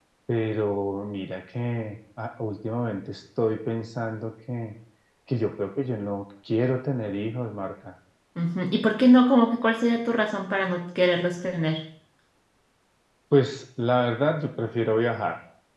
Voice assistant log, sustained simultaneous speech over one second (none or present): none